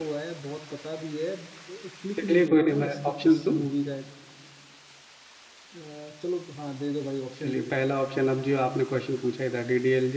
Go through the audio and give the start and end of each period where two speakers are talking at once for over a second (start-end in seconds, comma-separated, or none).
2.2-3.5